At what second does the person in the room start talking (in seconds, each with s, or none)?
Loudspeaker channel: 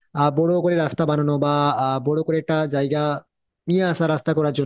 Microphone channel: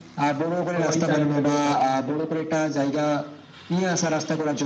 0.7 s